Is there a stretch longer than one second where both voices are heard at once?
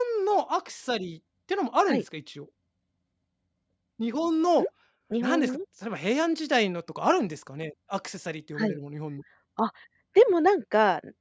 No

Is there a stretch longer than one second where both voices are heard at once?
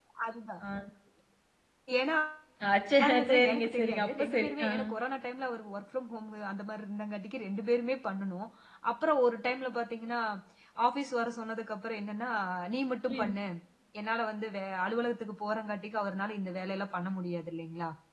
Yes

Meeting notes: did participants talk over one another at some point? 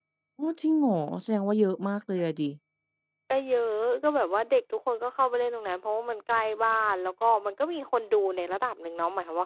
No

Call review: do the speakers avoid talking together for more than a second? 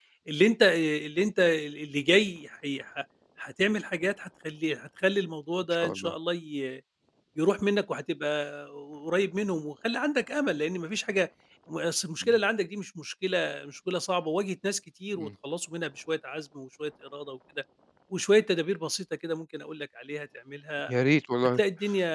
Yes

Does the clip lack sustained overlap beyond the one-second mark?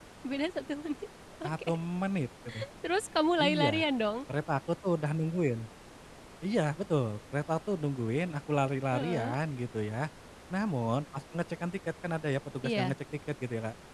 Yes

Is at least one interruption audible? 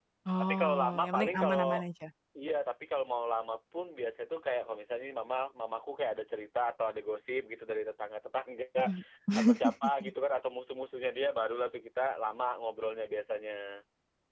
Yes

